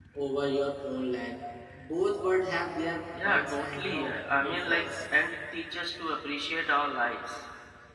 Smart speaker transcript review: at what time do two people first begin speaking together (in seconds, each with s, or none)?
3.1 s